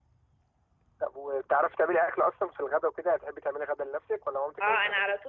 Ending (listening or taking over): taking over